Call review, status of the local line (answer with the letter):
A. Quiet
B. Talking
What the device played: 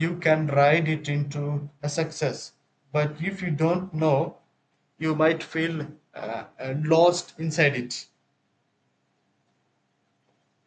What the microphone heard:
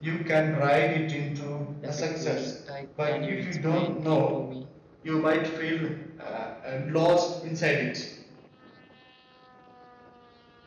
B